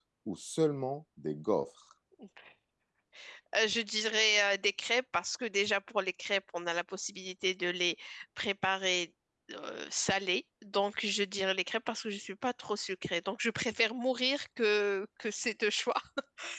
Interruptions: none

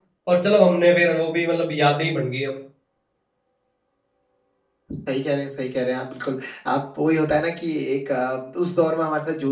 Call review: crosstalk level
none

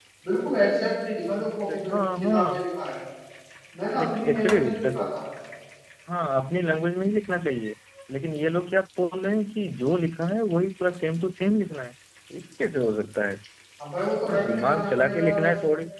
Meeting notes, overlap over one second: present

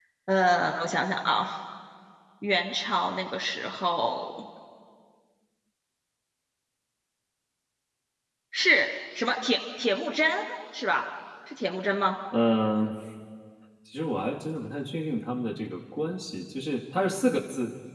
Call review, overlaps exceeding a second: none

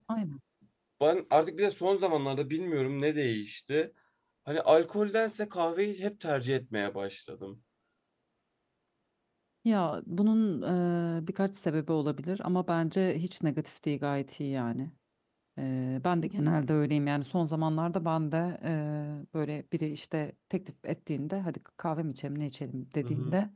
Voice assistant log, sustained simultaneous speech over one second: none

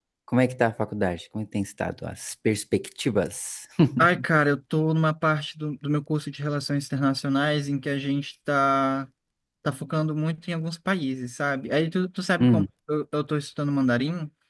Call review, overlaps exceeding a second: none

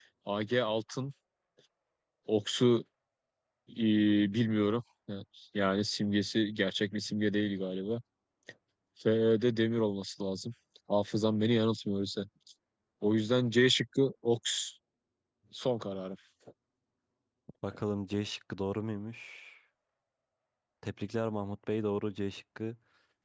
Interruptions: none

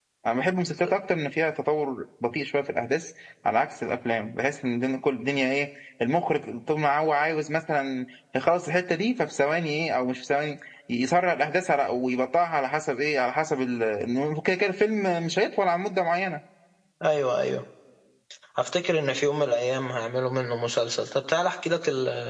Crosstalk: none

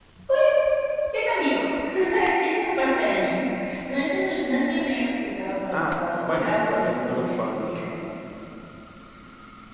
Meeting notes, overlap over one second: present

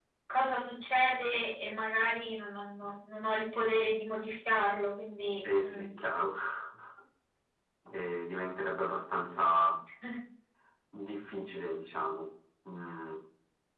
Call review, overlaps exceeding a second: none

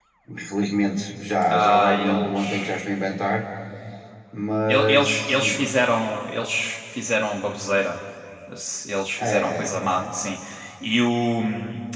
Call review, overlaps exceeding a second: present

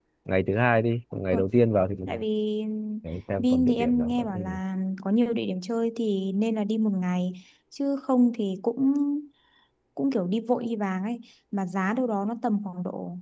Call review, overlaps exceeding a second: present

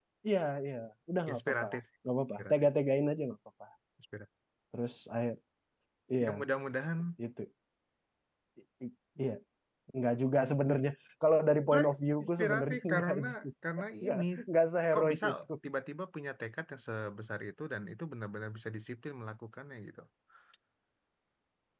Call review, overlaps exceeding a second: present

